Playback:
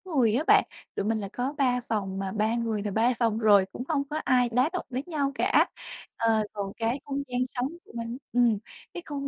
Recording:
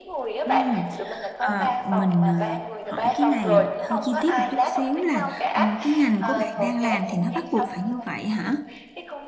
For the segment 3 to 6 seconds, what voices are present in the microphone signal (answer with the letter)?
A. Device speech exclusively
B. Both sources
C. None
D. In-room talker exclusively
B